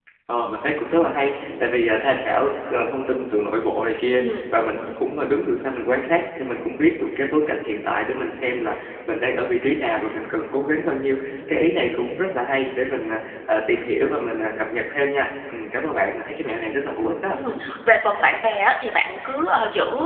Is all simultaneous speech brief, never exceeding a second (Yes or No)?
Yes